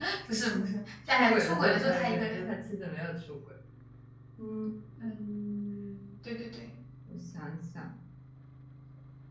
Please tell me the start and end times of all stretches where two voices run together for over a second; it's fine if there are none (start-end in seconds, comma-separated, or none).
1.1-2.4